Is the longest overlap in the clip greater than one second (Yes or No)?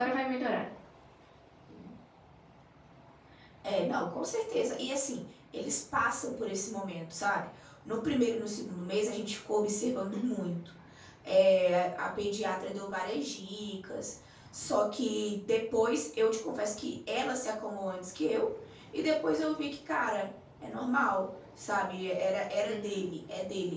No